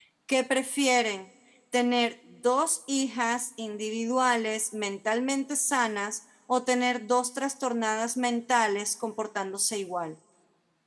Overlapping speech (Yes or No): No